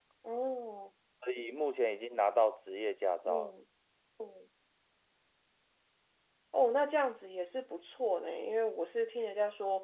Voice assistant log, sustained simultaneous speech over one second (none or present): none